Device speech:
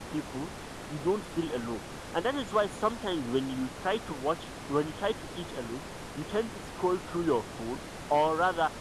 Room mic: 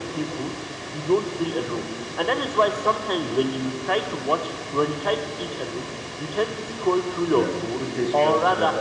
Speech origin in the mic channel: both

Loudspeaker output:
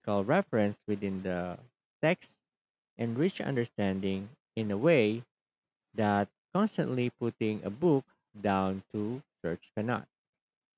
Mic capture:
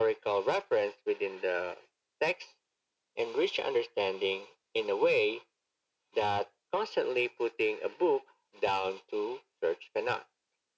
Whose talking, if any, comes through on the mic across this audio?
echo only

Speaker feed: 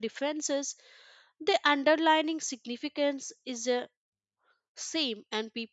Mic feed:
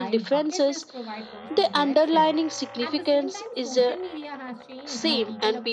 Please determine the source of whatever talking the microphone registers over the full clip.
both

